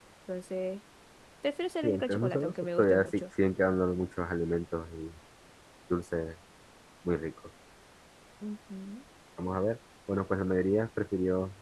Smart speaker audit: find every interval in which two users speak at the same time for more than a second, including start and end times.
1.8-3.2

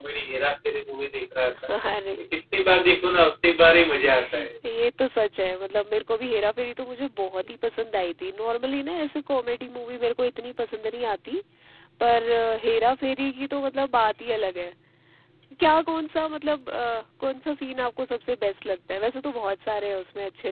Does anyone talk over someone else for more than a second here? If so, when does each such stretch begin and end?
none

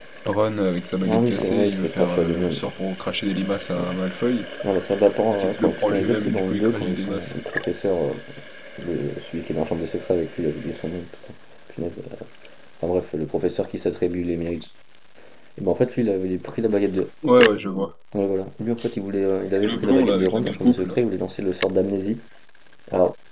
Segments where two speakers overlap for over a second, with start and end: 1.1-2.7, 5.3-7.3, 19.5-20.9

